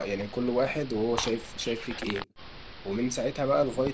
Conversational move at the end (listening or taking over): listening